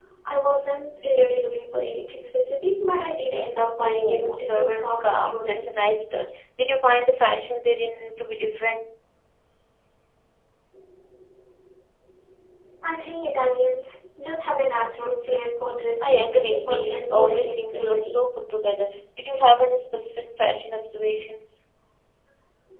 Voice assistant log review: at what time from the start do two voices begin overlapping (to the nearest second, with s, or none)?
4 s